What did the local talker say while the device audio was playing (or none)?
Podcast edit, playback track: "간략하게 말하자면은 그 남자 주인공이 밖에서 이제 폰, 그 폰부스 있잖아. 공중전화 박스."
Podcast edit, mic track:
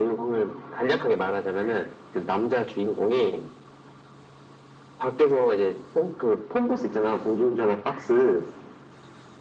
none